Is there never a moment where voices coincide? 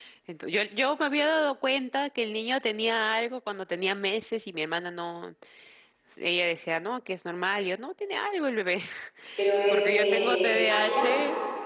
No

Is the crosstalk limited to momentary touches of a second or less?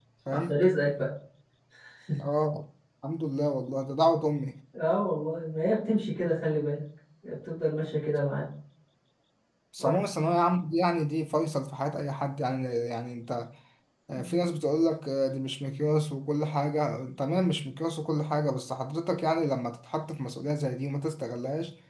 Yes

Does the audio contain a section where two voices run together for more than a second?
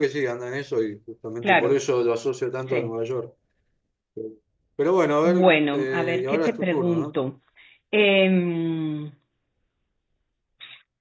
Yes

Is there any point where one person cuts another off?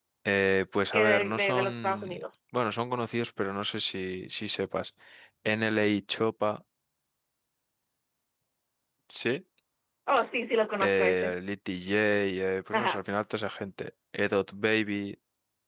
Yes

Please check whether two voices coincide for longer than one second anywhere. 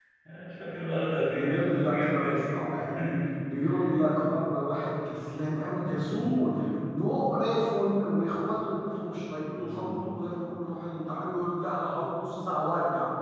Yes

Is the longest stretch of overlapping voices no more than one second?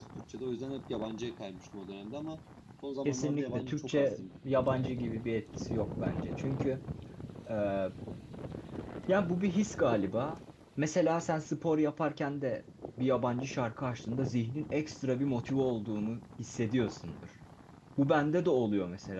No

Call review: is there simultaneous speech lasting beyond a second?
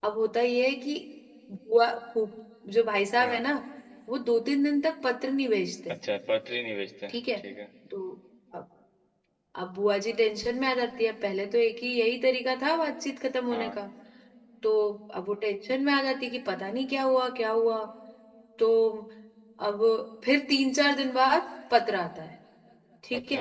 No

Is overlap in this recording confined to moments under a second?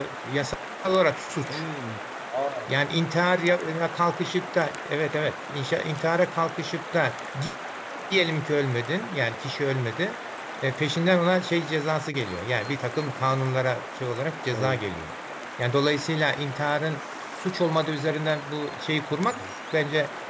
Yes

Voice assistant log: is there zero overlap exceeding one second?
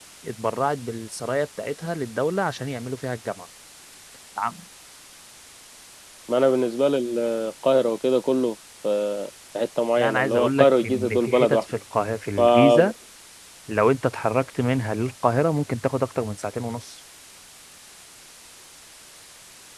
No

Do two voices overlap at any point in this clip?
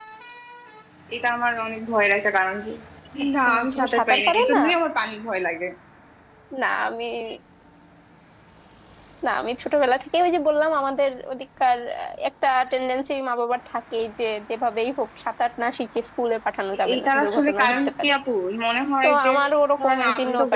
Yes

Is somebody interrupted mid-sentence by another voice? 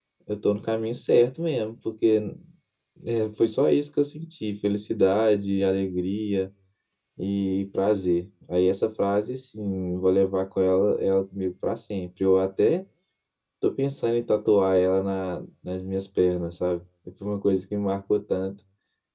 No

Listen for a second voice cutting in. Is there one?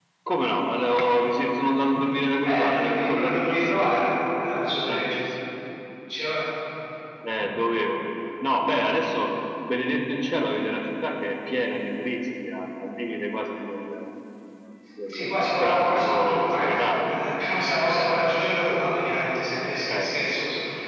Yes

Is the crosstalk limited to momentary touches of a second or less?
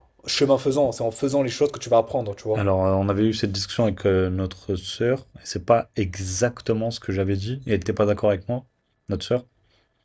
Yes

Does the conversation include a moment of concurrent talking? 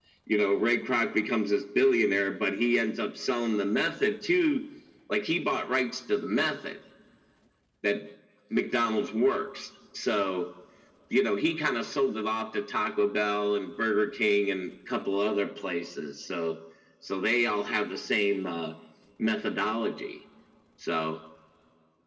No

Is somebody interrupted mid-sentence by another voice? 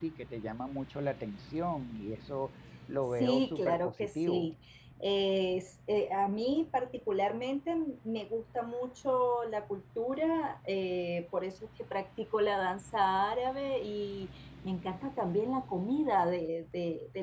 Yes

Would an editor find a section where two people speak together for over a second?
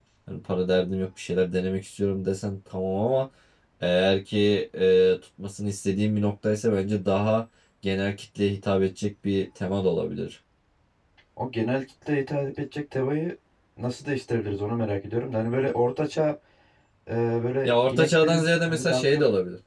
Yes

